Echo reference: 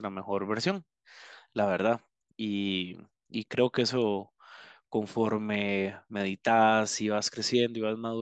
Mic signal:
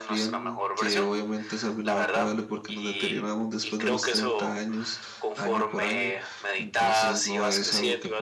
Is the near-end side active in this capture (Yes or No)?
Yes